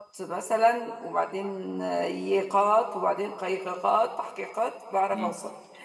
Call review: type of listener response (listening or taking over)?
taking over